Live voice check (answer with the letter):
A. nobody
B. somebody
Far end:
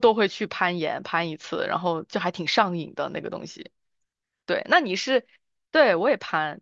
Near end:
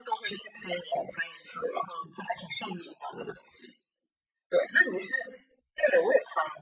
A